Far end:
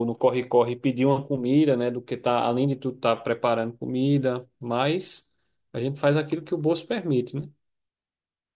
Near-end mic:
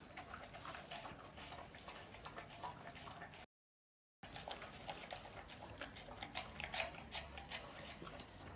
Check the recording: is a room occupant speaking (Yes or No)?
No